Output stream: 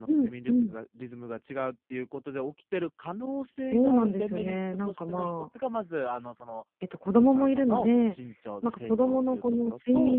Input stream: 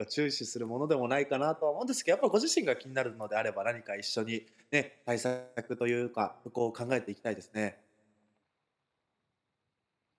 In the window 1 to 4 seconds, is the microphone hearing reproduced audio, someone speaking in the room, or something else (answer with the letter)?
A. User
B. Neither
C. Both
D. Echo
A